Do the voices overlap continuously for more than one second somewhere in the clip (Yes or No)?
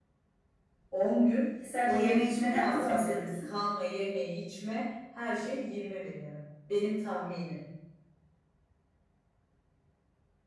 Yes